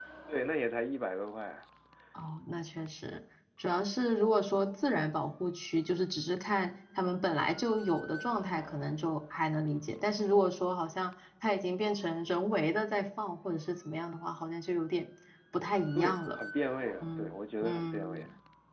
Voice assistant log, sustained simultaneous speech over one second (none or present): present